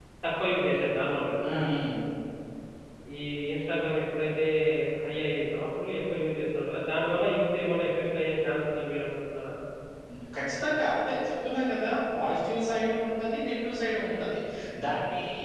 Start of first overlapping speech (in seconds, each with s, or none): none